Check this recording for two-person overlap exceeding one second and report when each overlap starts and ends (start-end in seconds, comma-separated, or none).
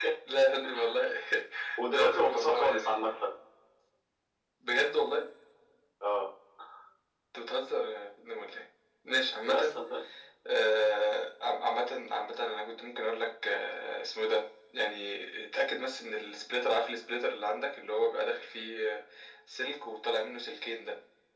1.9-3.2